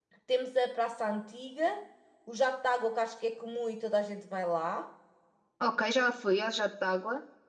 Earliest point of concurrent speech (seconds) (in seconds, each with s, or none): none